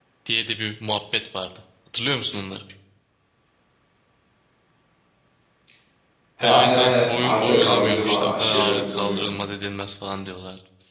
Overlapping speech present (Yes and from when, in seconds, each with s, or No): Yes, from 6.4 s